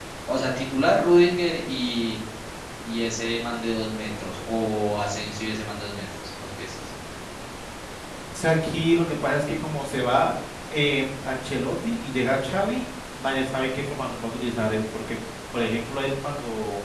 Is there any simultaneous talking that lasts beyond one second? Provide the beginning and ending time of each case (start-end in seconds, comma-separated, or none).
none